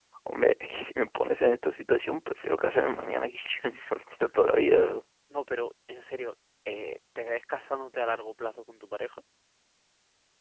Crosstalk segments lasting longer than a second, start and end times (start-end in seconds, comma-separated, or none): none